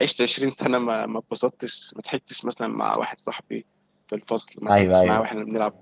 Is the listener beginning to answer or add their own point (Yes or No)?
No